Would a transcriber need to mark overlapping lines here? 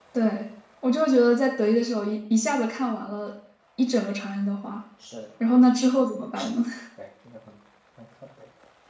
No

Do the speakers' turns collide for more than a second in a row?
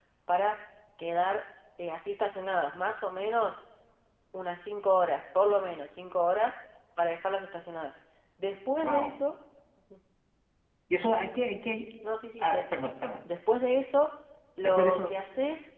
No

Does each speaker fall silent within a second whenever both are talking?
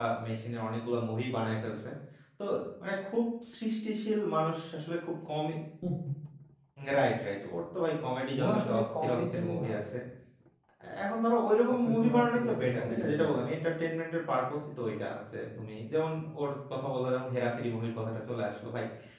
No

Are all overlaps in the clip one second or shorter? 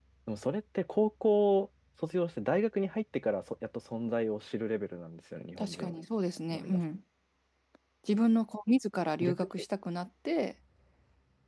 Yes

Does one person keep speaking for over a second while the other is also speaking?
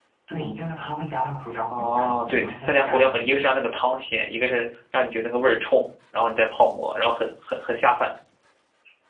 Yes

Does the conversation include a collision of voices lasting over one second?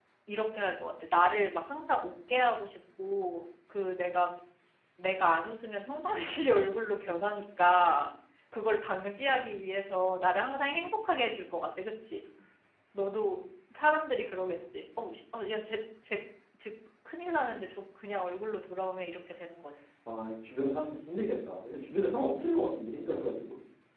No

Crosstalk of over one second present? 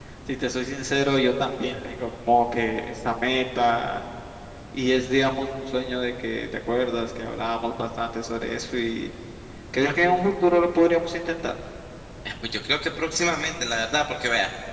No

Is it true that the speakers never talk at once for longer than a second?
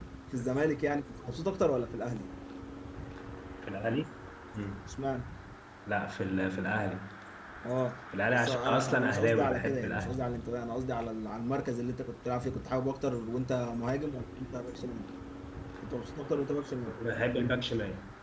No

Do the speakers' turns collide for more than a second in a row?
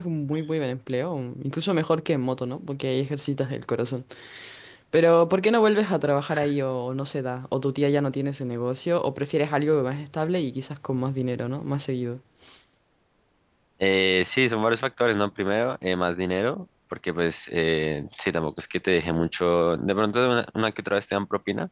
No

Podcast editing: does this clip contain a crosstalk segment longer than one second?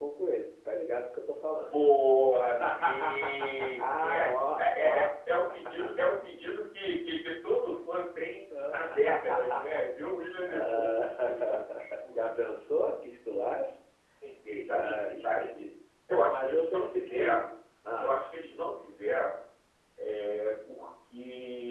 Yes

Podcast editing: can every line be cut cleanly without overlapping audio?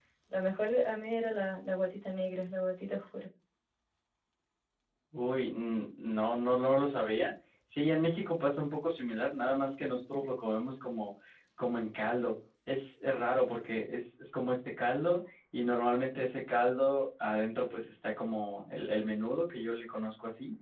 Yes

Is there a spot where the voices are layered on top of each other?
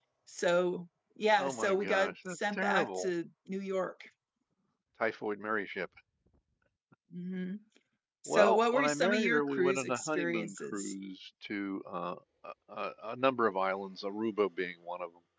Yes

